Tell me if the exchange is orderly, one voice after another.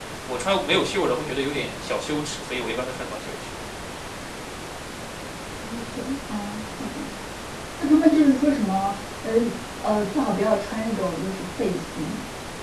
Yes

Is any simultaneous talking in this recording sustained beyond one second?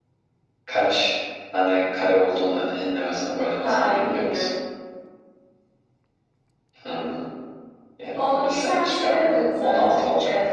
Yes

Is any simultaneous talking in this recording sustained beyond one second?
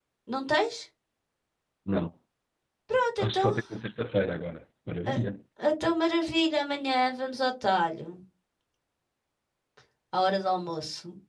No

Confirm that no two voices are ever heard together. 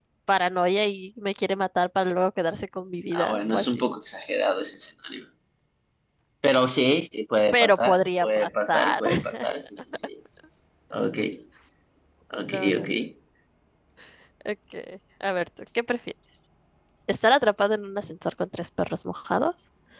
No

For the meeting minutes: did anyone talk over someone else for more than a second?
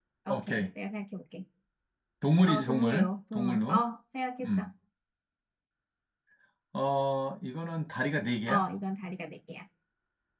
Yes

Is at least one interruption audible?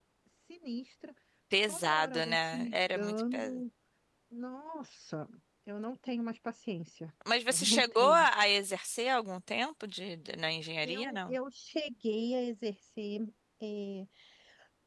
Yes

